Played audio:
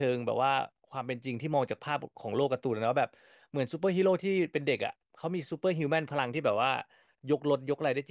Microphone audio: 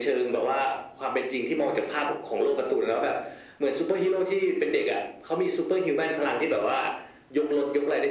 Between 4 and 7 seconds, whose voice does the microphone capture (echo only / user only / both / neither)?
echo only